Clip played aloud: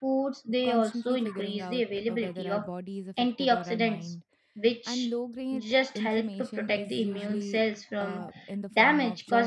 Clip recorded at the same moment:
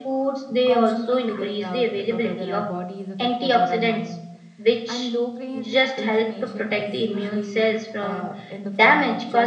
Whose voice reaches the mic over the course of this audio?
echo only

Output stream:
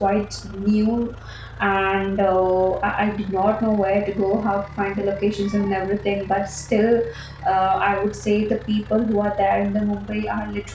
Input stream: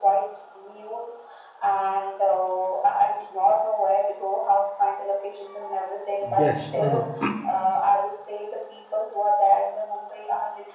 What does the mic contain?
both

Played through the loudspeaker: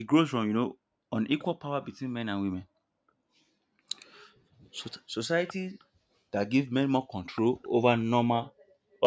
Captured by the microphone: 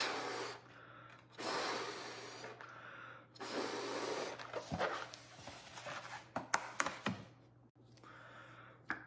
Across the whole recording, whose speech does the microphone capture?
neither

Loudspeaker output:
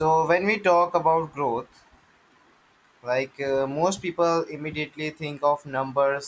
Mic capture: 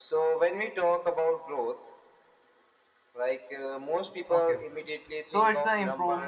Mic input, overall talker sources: both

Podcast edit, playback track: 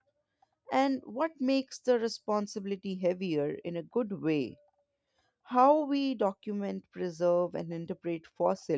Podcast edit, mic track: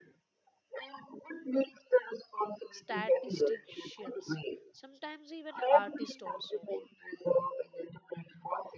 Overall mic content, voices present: both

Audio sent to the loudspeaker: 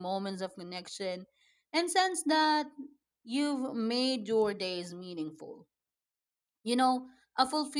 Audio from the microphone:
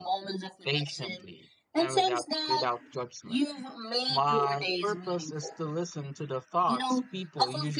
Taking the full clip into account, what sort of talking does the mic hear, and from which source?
both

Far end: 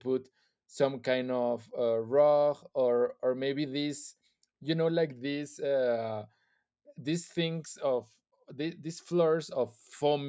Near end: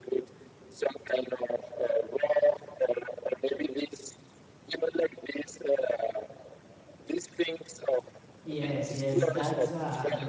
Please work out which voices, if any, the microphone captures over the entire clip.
both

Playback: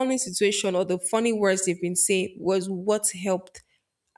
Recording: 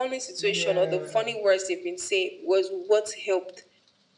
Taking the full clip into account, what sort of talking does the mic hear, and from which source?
both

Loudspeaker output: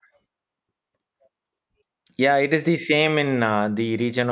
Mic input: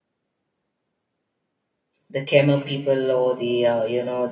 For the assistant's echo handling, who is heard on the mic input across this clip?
user only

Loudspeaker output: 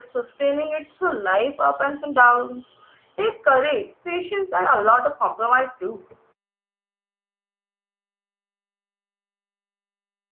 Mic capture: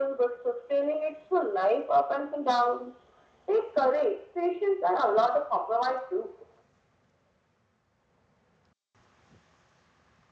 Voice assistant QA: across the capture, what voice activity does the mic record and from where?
echo only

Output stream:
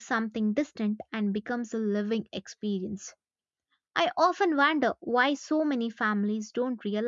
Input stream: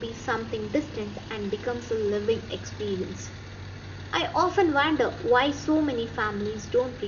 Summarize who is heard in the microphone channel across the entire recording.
echo only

